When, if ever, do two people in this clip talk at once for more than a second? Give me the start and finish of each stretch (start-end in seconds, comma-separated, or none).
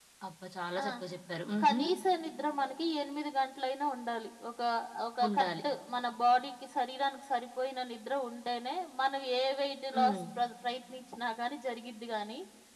none